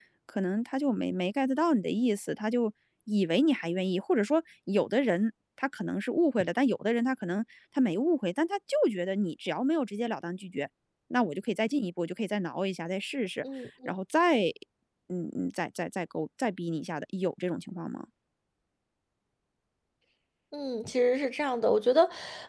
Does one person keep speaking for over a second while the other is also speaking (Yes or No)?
No